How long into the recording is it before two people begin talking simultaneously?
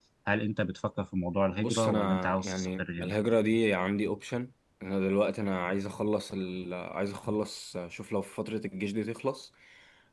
1.6 s

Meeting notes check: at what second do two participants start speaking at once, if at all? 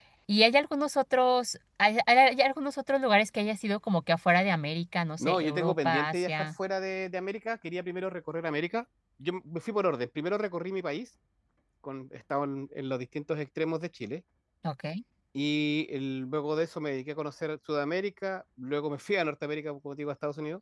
5.2 s

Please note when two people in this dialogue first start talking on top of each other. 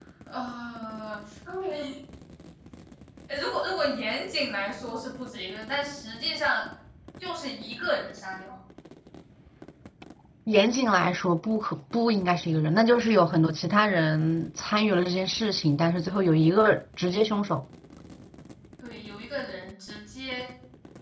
none

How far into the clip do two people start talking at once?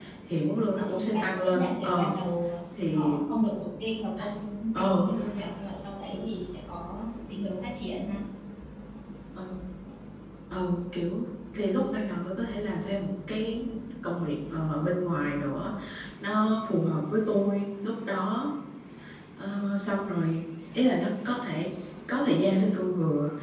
0.8 s

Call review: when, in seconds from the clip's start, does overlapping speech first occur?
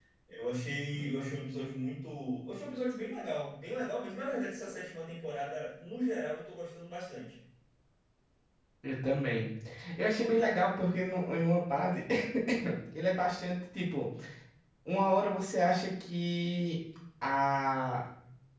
none

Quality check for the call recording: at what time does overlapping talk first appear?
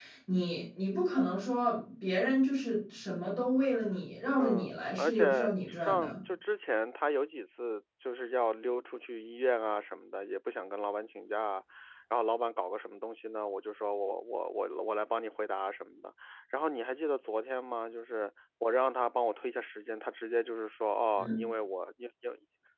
4.4 s

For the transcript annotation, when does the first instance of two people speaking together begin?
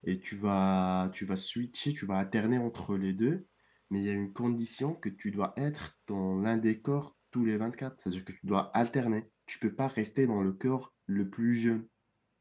none

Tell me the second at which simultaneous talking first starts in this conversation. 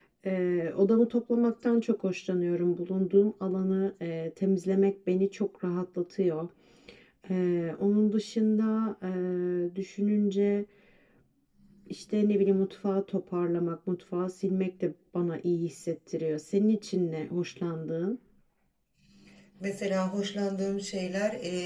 none

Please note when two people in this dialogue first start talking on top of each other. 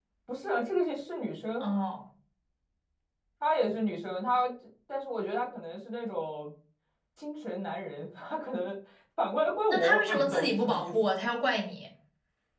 9.7 s

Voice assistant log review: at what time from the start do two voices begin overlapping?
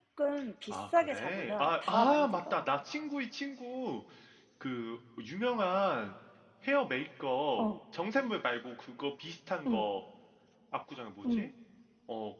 0.7 s

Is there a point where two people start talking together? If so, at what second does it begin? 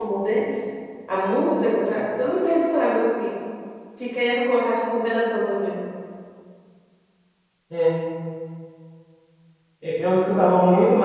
none

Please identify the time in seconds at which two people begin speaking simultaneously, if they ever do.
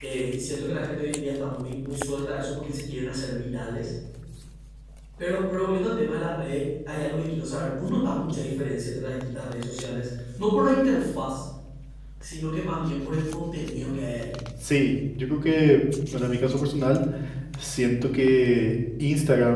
none

